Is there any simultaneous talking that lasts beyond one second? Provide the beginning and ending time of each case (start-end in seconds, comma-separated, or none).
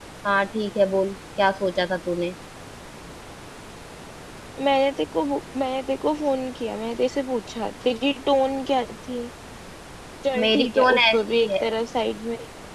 10.4-11.6